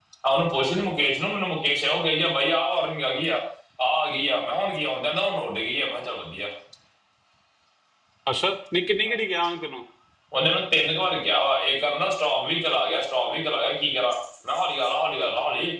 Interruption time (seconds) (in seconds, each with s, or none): none